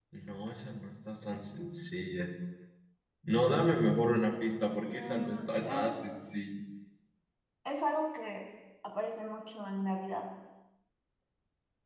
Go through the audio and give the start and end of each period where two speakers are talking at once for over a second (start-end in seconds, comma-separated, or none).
4.8-6.5